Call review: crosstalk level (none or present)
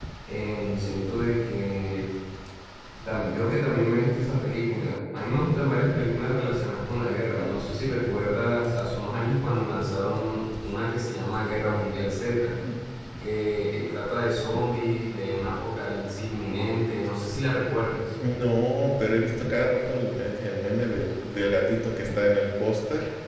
none